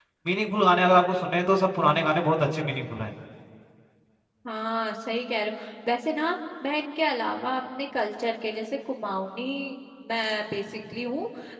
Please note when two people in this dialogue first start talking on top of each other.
none

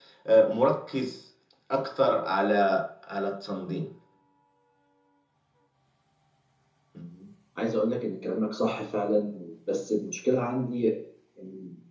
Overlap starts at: none

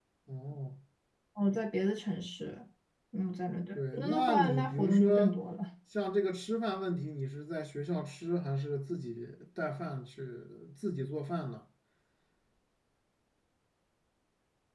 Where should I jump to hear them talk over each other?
4 s

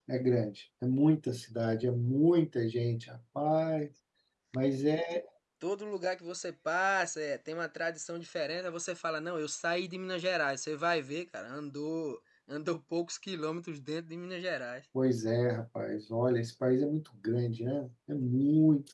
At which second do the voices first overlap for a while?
none

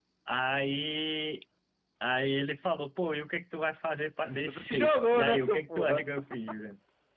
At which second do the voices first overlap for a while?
4 s

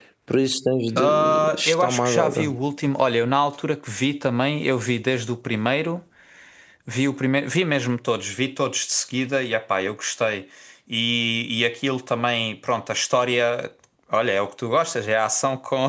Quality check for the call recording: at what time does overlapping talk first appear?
1 s

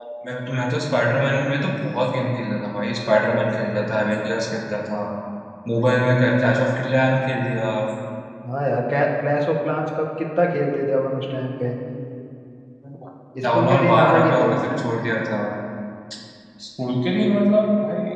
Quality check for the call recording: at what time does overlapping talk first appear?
13 s

